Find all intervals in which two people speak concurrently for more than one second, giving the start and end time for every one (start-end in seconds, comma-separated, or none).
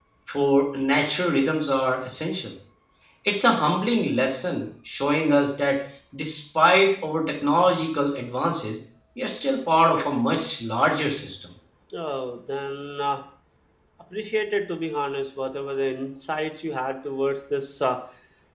none